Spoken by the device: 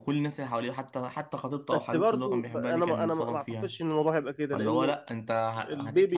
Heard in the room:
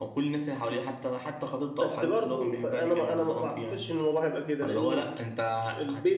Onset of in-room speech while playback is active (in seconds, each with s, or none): none